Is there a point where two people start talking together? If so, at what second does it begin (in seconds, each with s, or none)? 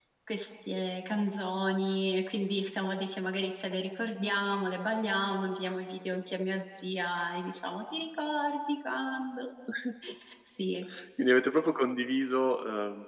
none